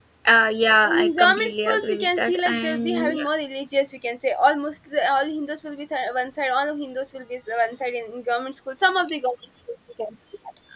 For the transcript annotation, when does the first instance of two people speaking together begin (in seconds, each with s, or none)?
0.8 s